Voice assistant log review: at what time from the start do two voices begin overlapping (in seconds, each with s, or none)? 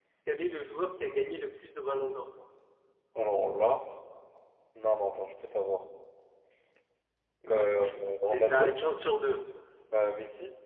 7.5 s